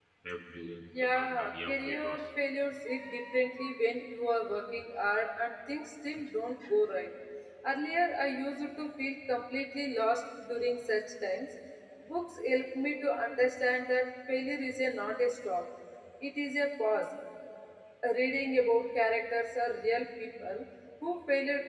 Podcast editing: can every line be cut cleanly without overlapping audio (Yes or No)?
No